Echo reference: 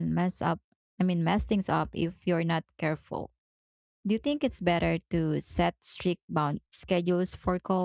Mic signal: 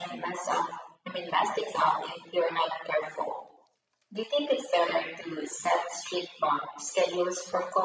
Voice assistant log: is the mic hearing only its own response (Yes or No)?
Yes